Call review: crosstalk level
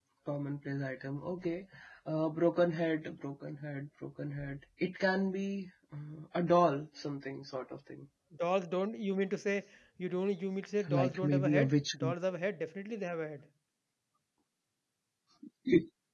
present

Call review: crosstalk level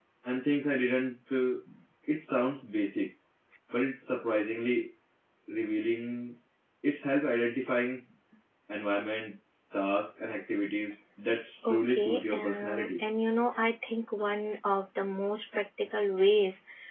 present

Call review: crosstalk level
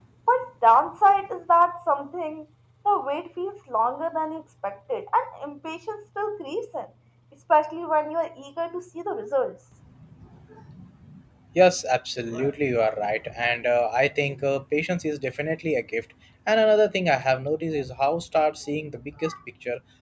none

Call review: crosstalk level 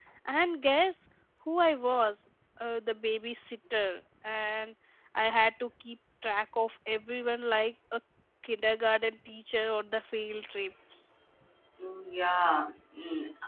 none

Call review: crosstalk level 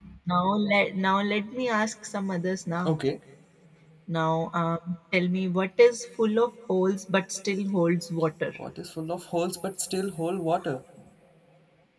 none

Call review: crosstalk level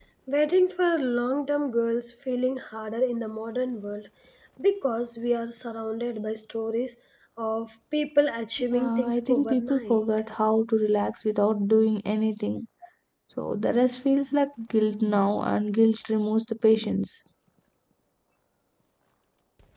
present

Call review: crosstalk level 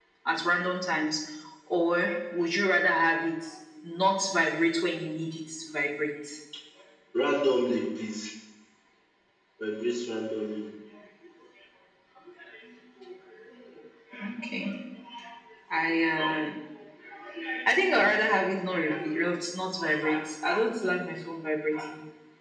none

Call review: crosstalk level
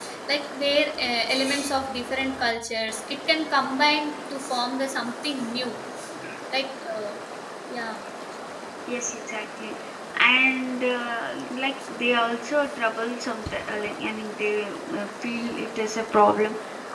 none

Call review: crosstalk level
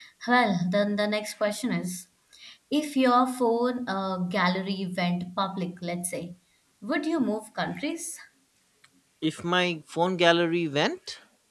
none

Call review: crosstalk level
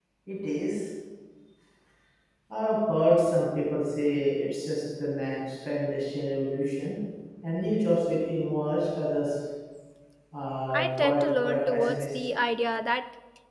present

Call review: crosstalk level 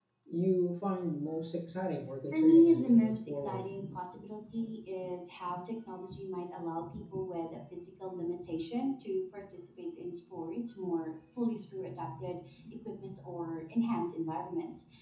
present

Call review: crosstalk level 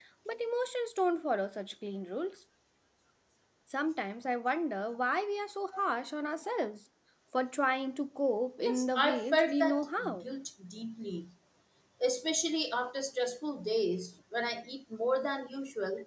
present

